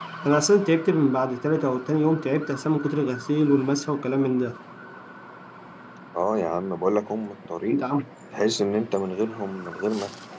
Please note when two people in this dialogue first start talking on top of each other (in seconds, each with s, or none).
none